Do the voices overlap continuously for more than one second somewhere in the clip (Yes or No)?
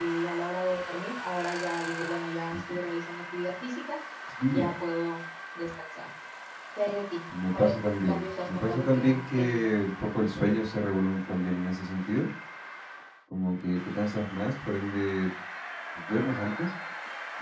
Yes